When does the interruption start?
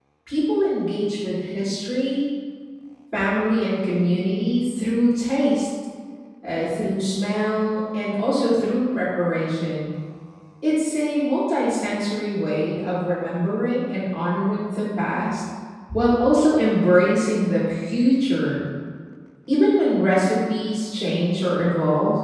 none

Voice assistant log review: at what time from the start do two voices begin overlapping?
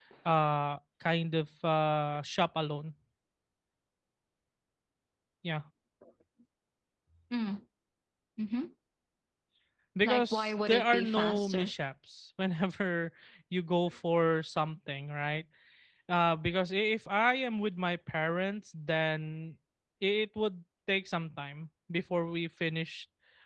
10.0 s

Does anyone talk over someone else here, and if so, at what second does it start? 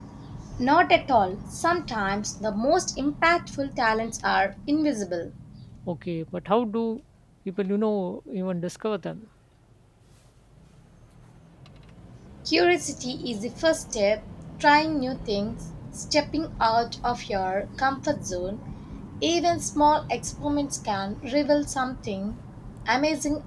none

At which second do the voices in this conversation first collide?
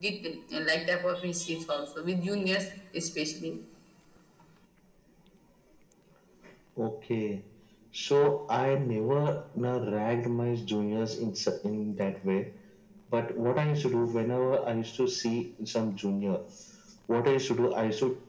none

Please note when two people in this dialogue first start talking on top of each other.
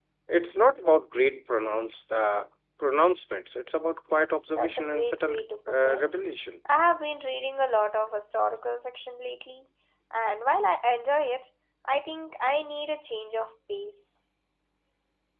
4.5 s

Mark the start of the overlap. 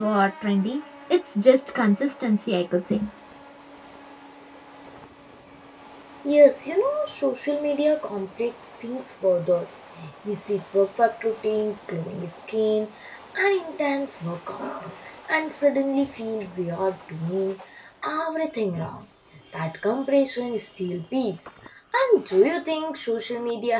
none

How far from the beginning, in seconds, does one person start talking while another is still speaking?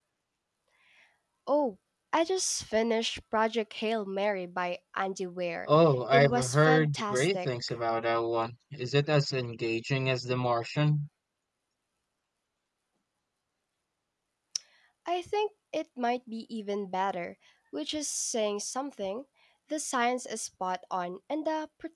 6.1 s

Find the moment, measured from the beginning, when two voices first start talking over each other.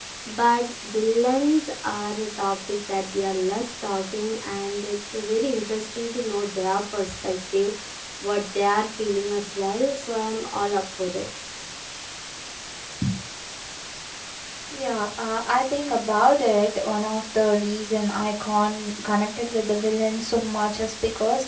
none

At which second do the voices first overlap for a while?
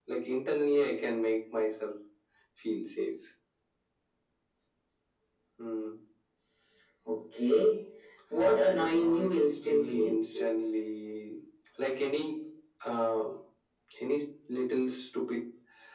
8.9 s

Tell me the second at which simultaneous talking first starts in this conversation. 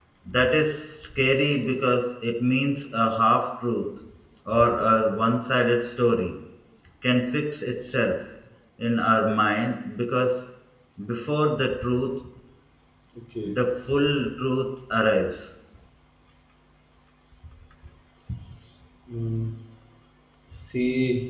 none

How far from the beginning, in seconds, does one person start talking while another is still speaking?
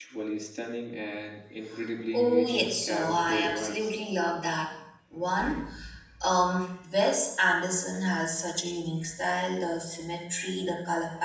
2.1 s

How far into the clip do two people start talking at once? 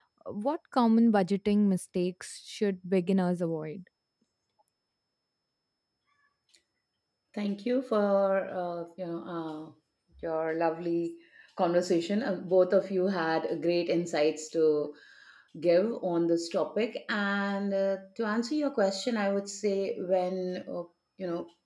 none

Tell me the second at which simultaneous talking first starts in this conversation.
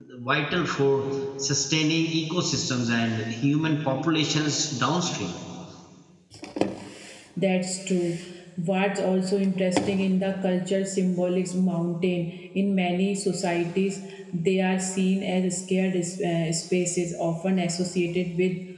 none

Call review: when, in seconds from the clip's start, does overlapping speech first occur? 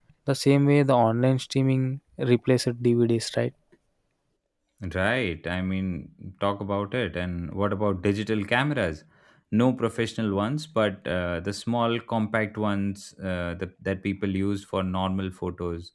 none

